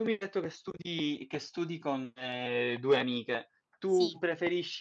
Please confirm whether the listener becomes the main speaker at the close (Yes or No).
No